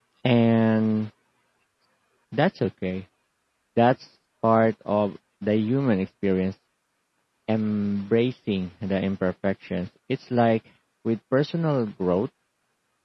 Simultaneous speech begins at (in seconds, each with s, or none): none